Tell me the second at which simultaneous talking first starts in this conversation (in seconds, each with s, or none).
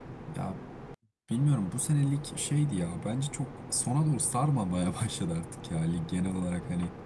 none